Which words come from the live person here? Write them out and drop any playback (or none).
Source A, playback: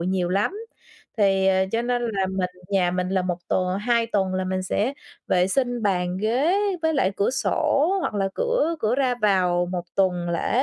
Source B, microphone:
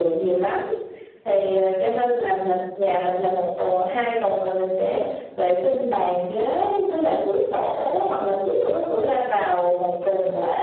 none